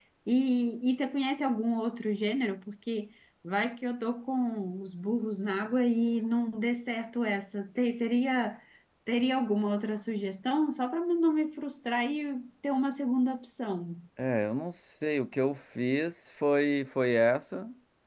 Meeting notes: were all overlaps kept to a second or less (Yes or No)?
Yes